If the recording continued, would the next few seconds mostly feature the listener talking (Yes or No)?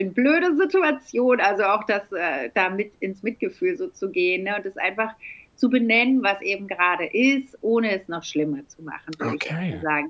No